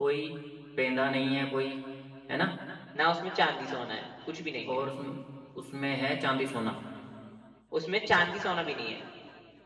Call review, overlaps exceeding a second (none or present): none